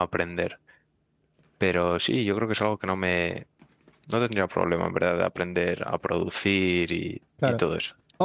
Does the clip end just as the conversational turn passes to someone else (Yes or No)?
Yes